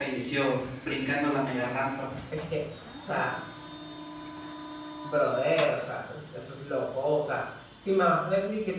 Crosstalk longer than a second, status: none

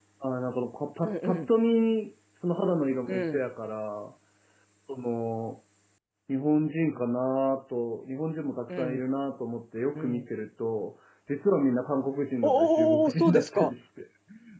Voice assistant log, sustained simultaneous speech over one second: present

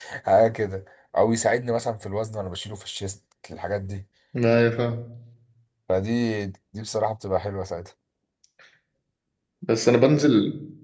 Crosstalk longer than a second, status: none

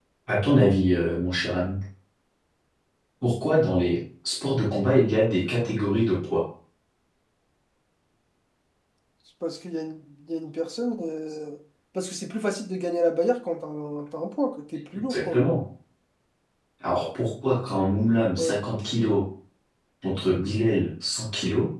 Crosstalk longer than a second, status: none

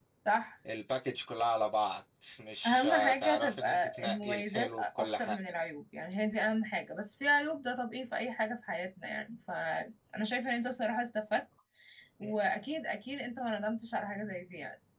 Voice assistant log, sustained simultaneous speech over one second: present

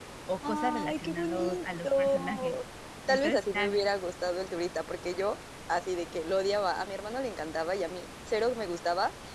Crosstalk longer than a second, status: present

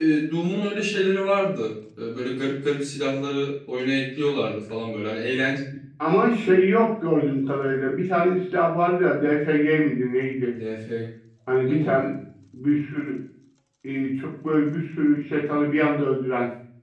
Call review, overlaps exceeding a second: none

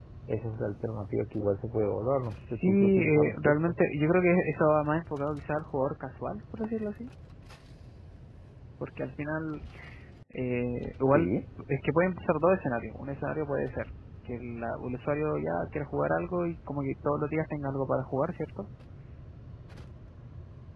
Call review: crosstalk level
present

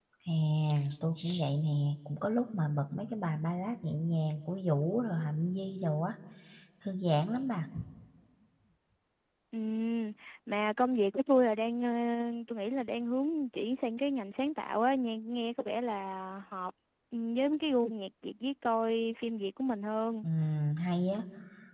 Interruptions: none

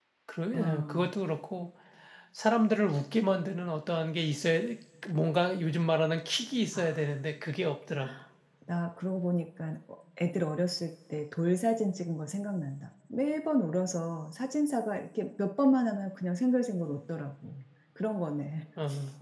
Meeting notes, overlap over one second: none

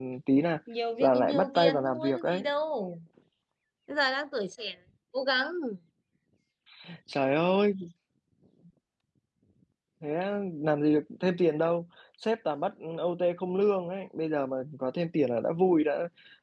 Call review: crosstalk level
present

